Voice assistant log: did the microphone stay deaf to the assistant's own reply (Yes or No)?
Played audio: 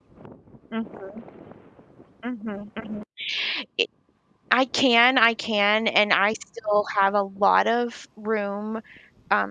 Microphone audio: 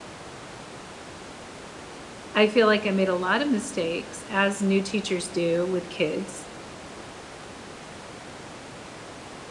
Yes